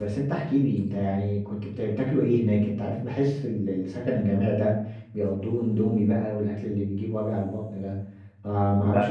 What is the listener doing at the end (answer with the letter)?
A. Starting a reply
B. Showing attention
B